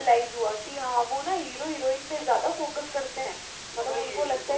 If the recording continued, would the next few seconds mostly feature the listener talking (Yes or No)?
Yes